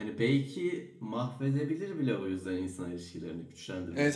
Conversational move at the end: taking over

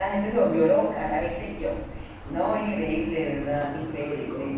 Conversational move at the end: listening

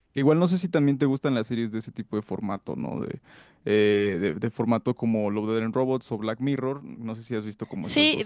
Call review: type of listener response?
taking over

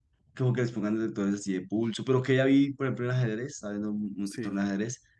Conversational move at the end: listening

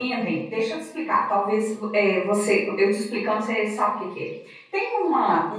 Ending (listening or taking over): listening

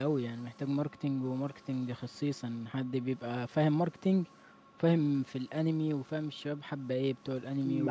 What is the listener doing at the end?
taking over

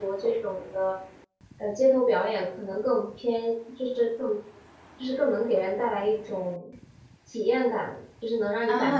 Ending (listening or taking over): taking over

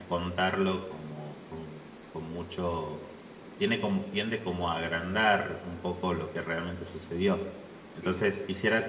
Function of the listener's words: listening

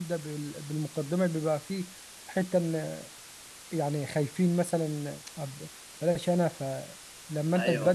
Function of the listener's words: listening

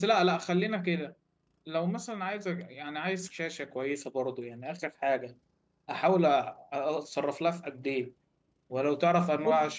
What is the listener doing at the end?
listening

